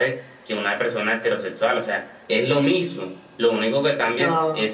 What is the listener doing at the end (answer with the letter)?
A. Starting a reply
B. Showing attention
B